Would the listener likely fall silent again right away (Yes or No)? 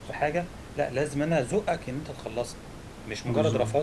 Yes